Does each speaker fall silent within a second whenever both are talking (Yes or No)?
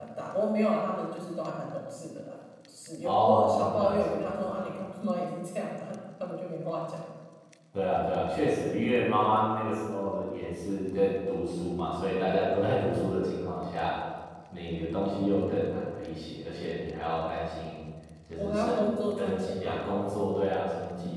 No